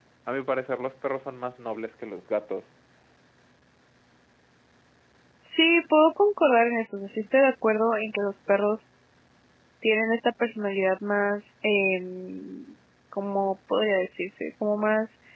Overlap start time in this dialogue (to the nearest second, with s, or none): none